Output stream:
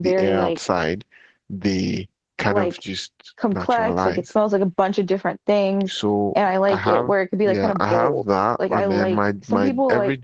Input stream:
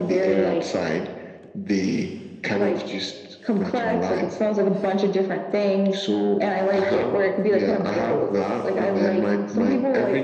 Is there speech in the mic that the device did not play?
No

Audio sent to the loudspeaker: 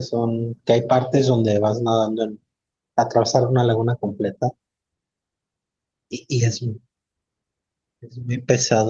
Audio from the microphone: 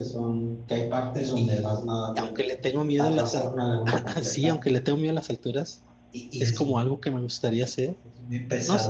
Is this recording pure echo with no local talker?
No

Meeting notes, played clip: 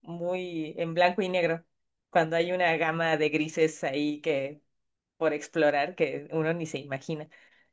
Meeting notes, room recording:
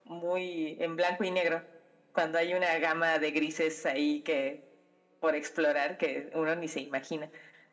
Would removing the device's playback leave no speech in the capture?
Yes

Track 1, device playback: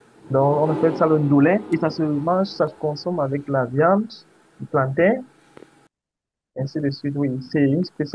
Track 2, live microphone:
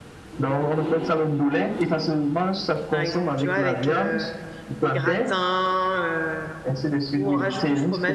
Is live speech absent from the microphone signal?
No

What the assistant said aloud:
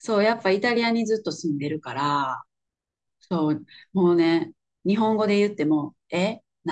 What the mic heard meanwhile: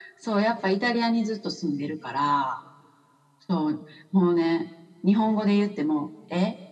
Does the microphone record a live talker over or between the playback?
No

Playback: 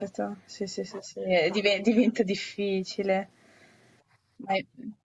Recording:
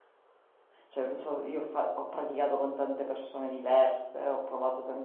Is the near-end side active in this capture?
Yes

